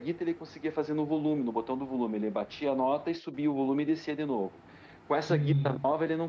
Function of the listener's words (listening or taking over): listening